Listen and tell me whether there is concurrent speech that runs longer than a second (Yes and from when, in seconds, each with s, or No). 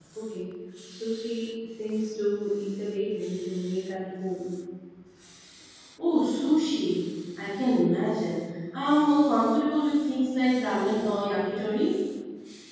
No